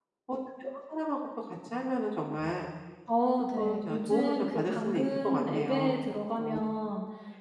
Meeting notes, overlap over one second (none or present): present